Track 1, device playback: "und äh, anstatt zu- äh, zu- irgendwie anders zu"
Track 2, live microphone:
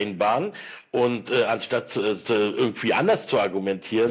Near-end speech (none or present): none